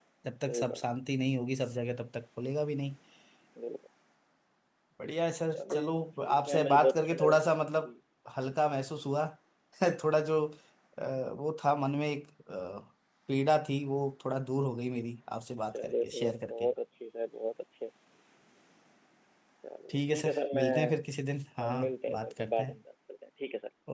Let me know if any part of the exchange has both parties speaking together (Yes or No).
Yes